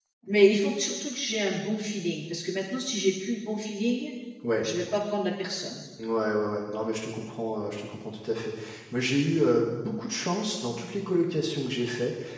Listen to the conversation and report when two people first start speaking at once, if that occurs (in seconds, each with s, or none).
none